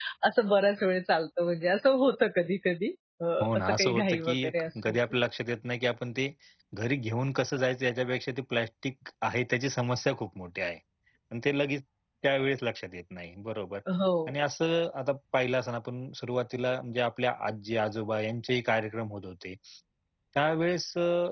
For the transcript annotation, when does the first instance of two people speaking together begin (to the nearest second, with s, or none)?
3 s